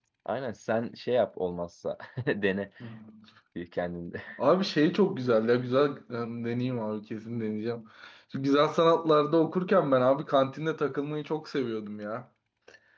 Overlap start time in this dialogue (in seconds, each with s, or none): none